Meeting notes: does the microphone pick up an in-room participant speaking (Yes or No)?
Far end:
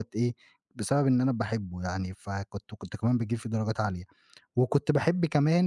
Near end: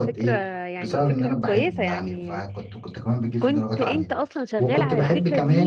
Yes